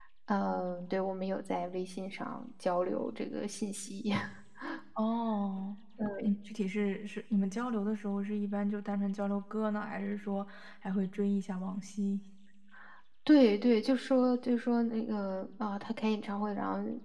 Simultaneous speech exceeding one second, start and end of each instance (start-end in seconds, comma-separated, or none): none